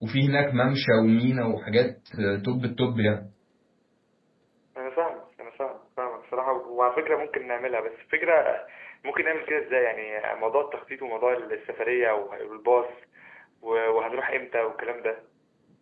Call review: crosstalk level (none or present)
none